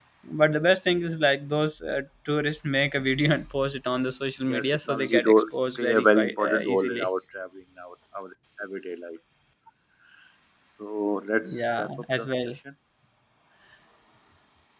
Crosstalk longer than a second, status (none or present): present